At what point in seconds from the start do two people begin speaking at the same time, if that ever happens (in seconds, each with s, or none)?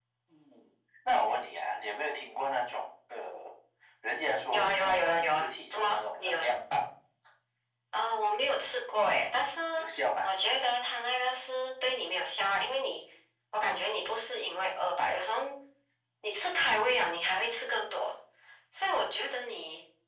4.5 s